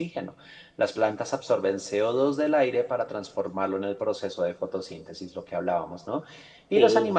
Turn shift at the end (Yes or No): No